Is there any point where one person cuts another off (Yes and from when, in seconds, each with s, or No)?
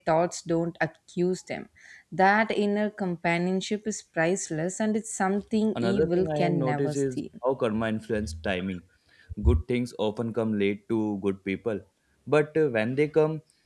Yes, from 5.8 s